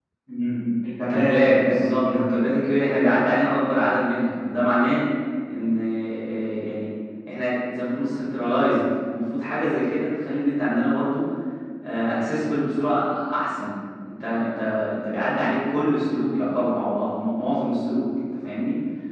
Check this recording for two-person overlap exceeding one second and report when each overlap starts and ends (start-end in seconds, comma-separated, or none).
1.0-2.3